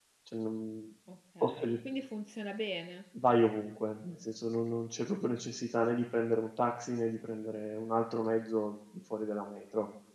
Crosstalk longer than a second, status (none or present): none